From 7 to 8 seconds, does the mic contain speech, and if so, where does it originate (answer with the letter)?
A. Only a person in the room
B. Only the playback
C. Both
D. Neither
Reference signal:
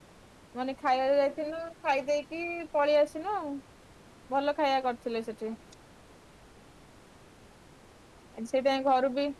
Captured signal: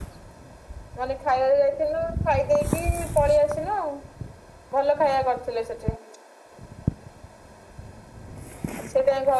D